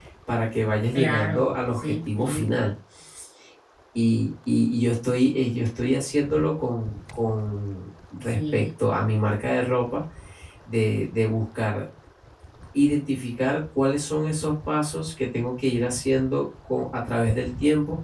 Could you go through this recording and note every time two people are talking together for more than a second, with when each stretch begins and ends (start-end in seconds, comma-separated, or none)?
0.9-2.5